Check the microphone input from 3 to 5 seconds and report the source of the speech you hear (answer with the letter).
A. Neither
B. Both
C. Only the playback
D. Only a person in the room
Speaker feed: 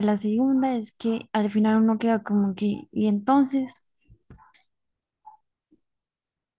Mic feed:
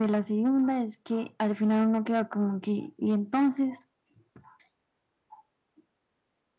C